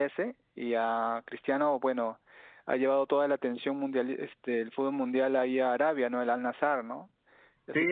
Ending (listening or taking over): taking over